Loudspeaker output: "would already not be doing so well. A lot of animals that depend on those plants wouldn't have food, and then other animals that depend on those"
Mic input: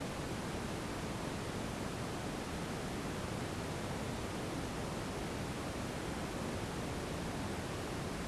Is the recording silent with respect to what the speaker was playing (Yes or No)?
Yes